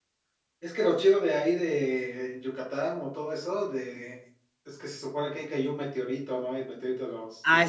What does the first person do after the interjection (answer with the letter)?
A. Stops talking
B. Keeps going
A